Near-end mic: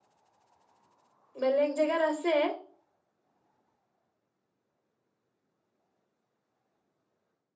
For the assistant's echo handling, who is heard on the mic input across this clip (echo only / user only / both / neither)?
user only